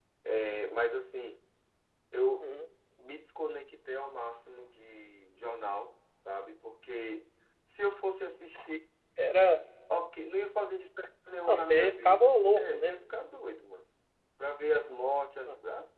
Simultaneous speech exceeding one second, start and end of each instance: 11.5-12.9

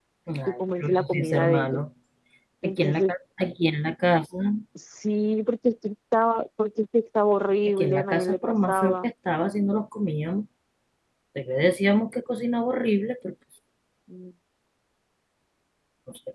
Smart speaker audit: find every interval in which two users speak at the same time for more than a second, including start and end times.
0.6-1.8, 7.8-9.1

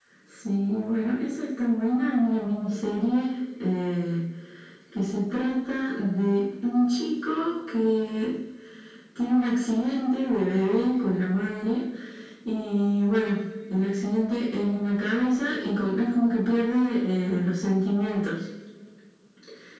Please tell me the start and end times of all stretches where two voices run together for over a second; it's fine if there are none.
none

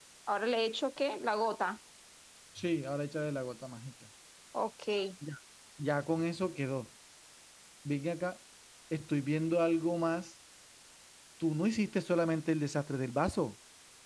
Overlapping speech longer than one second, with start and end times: none

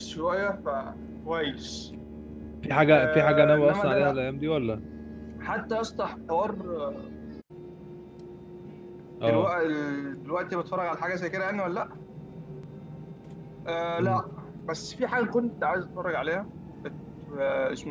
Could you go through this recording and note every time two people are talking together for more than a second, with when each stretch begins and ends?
2.9-4.2

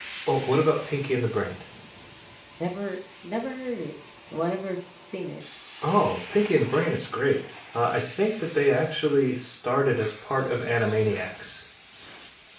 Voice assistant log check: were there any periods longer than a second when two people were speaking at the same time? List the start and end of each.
none

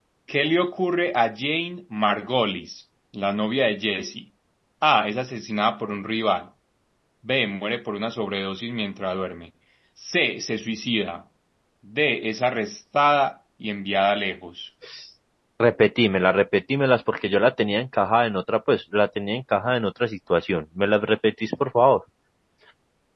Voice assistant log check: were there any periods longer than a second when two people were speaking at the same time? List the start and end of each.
none

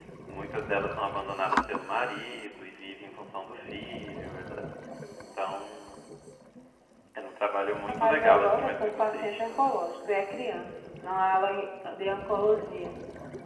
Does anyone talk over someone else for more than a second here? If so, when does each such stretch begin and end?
7.9-9.8

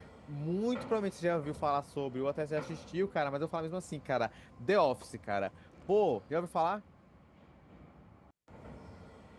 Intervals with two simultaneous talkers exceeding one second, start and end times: none

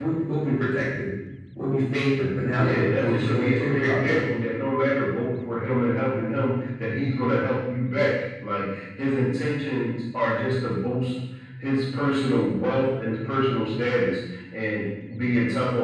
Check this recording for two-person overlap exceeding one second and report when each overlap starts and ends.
2.5-4.2

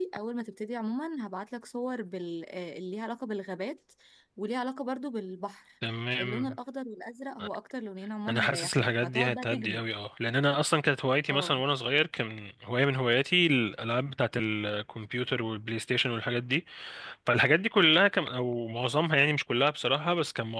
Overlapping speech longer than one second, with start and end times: 8.3-9.8

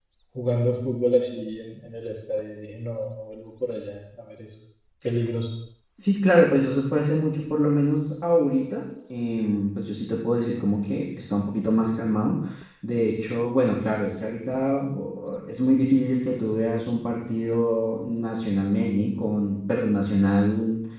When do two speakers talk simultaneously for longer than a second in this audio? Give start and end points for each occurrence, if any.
none

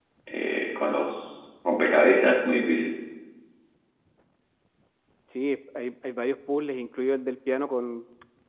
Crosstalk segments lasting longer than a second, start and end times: none

